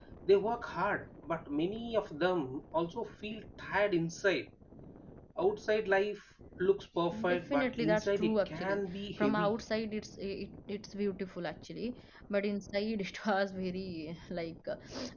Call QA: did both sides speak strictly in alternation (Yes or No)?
No